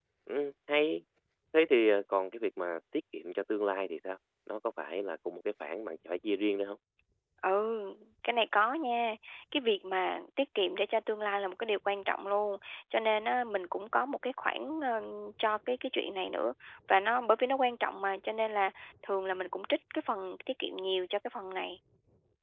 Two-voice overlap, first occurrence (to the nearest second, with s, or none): none